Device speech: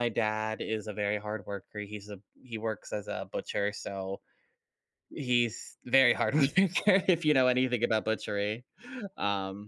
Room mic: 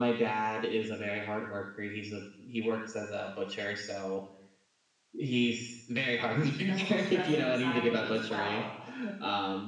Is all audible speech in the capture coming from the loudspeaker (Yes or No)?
No